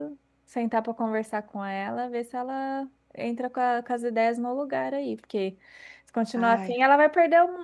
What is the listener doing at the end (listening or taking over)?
listening